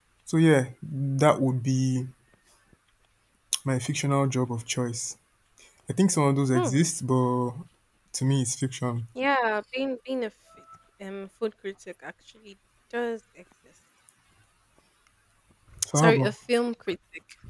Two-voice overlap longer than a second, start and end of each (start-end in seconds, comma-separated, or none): none